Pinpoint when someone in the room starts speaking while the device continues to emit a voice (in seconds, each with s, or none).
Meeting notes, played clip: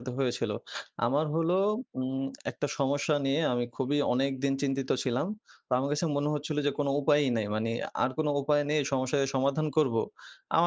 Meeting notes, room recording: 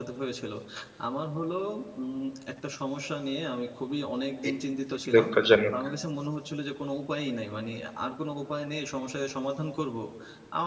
4.5 s